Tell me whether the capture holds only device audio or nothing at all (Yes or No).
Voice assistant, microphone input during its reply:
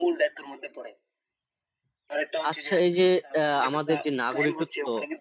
No